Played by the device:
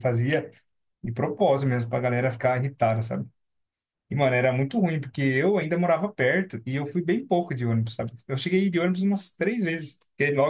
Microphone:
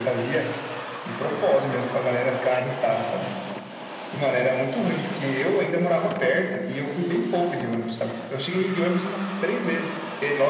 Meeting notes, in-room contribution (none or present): none